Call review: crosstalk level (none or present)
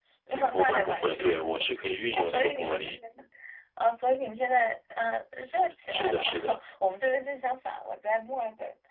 present